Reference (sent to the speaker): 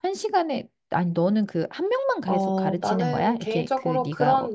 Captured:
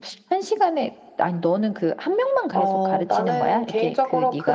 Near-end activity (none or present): none